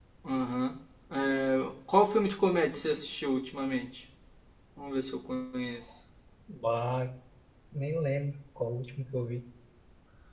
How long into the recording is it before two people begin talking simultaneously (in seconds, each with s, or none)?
none